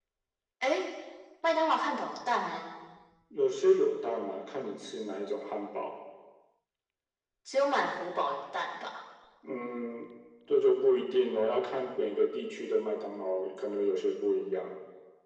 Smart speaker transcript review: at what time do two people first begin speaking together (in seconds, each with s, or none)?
none